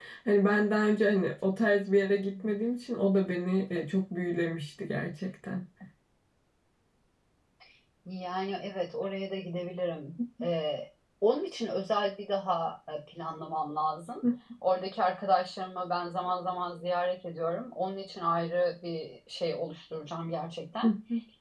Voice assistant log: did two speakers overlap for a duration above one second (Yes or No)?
No